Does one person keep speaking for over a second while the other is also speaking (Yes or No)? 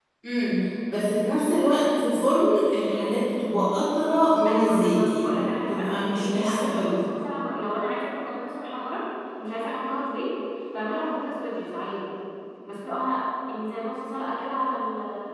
Yes